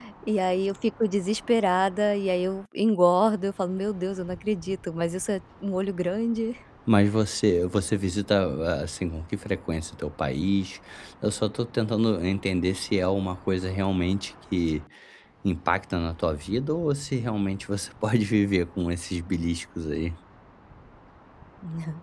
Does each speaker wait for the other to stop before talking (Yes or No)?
Yes